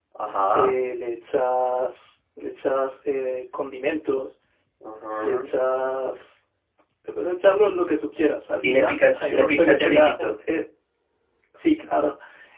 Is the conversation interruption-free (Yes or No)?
No